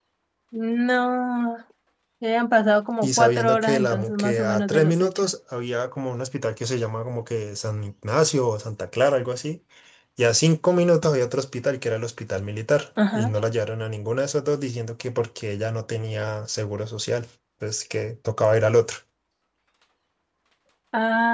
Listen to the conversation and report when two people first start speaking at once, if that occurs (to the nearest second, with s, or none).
3 s